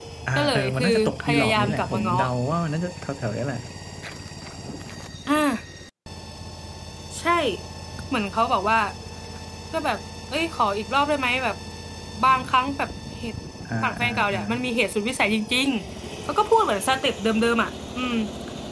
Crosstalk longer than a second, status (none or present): present